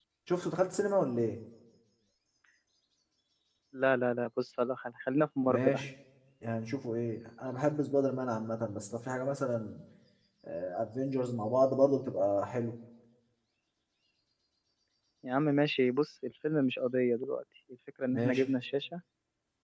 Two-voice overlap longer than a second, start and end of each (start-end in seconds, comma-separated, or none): none